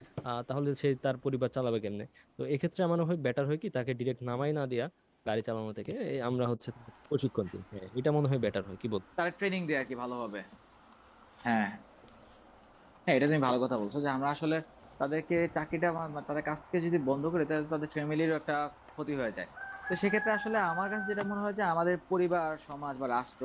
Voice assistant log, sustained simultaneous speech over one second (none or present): none